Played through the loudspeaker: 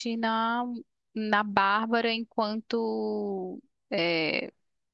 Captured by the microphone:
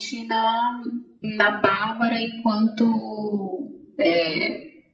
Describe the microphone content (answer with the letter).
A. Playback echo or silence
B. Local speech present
A